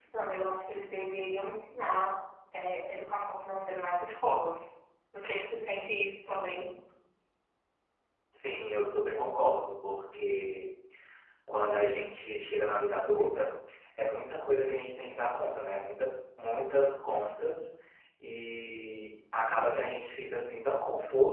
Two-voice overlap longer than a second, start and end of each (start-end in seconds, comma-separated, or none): none